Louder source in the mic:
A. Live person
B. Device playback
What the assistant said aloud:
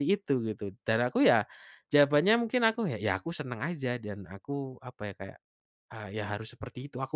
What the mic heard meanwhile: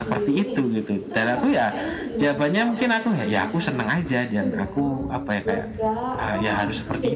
B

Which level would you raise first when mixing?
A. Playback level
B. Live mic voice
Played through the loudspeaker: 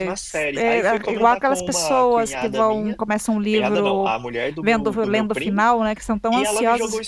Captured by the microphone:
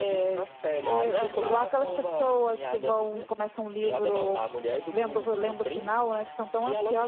B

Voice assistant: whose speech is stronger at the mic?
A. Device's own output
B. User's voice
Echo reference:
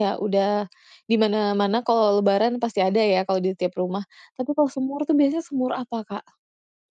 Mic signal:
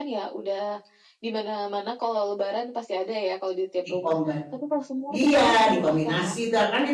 B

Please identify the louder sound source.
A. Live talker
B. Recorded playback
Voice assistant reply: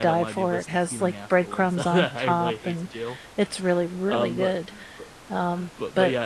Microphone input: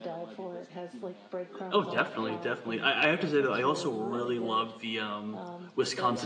A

